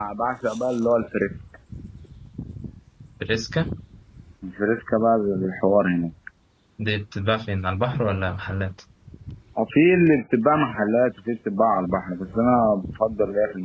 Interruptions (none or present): none